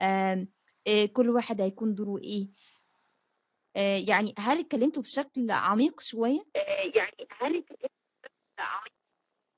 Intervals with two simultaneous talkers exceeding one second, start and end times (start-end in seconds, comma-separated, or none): none